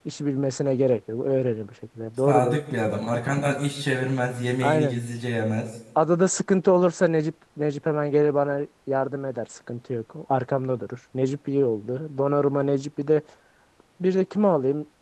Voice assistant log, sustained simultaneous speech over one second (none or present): none